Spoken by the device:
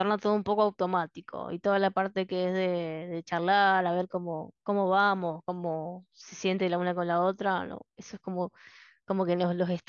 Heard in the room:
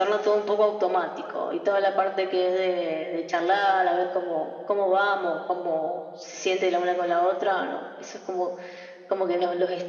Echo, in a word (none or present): present